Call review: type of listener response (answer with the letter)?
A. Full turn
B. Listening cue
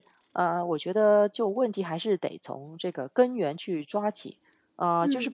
B